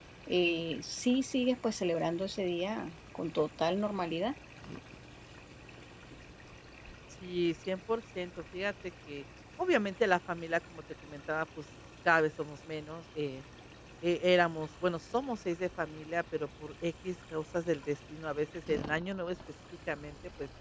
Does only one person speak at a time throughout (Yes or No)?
Yes